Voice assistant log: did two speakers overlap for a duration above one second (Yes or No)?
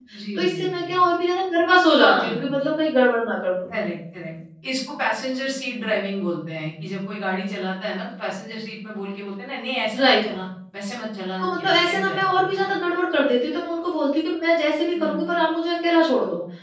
Yes